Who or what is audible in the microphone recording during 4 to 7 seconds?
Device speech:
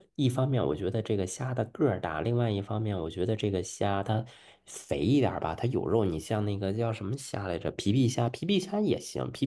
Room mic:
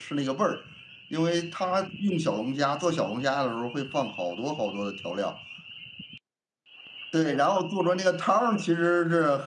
user only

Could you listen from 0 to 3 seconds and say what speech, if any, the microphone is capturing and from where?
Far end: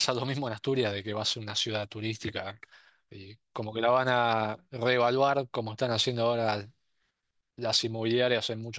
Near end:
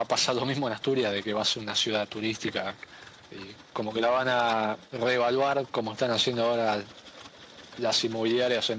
echo only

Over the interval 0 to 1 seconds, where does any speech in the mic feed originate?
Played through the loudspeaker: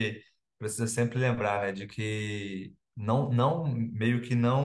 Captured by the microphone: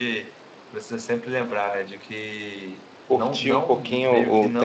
echo only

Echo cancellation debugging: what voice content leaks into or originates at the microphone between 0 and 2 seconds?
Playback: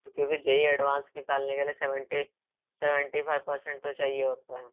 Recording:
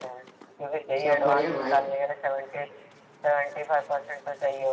both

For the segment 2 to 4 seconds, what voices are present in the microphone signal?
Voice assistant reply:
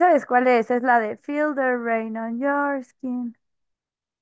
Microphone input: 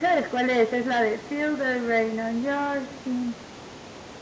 echo only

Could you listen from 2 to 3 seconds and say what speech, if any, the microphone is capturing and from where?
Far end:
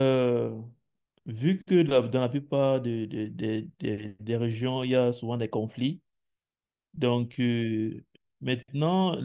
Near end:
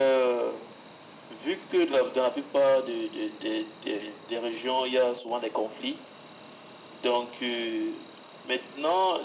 echo only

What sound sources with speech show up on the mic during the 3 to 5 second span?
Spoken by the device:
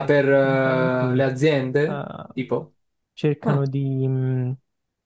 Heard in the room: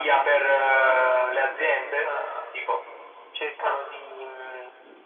echo only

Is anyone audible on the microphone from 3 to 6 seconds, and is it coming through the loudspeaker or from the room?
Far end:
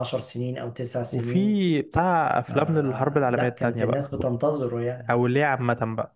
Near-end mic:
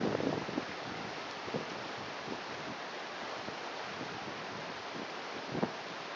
neither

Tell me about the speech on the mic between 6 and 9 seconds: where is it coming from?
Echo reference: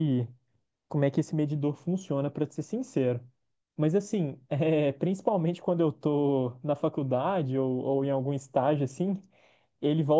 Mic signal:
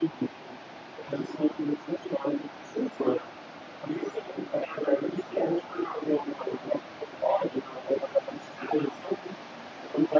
echo only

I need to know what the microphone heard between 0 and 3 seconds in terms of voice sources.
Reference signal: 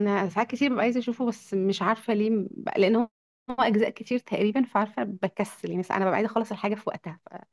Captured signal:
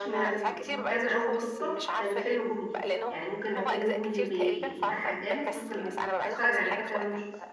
both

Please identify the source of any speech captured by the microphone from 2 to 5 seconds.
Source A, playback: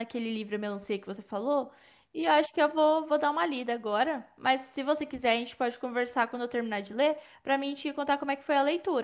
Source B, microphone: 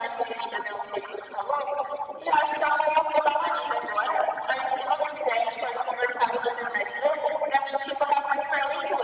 echo only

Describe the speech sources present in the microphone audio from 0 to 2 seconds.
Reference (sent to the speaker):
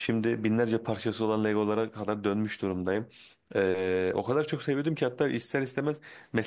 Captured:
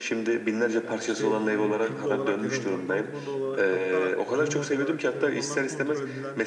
both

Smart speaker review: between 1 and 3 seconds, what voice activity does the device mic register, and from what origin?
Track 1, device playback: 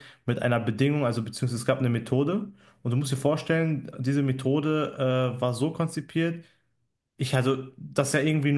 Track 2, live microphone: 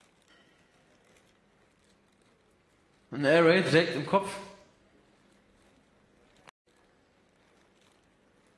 neither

